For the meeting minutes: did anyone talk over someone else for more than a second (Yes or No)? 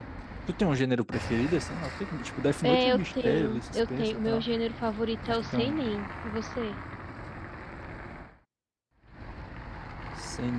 Yes